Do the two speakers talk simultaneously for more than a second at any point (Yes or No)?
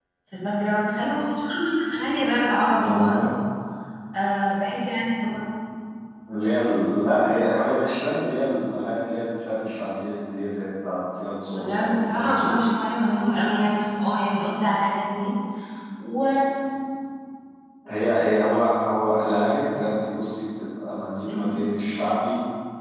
Yes